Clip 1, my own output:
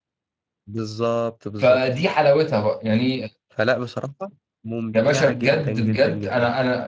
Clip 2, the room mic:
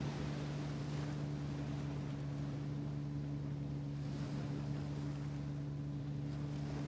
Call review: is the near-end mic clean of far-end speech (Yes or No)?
Yes